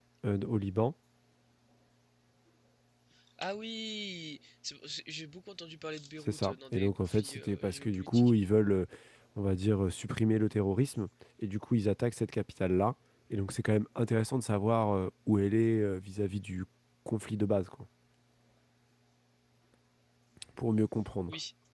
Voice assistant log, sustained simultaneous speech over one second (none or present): present